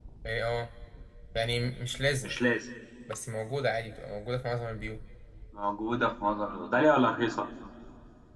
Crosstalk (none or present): none